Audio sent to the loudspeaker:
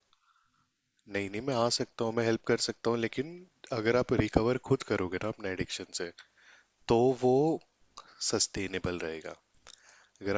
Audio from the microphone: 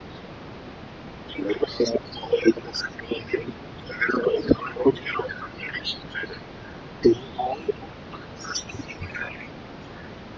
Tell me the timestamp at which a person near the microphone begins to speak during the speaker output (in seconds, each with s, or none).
none